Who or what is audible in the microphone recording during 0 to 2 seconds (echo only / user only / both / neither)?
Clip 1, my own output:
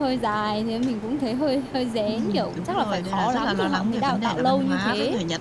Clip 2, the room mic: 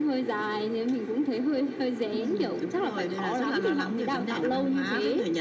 echo only